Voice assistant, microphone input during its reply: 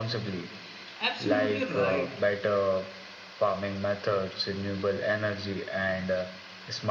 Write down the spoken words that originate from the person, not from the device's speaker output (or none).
Absolutely right.